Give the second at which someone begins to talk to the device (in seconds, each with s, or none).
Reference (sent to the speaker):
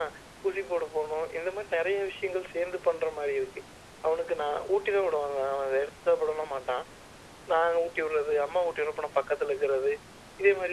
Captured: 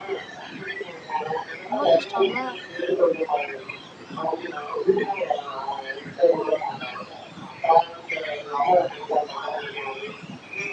1.7 s